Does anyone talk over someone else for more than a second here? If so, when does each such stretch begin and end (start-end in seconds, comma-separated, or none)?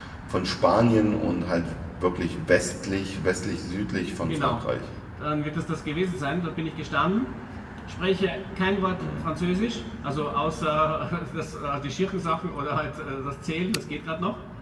none